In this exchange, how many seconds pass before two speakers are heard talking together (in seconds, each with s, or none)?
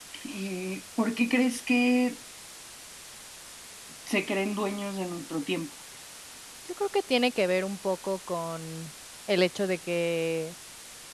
none